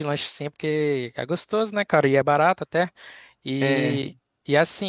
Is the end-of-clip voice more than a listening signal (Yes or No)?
No